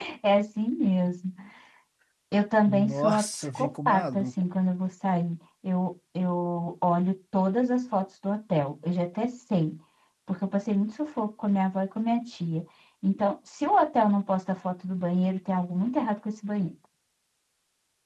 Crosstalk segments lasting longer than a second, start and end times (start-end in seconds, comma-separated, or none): 2.7-4.3